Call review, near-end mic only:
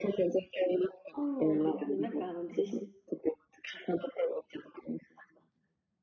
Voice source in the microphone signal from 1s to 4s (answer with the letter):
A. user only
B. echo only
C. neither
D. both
D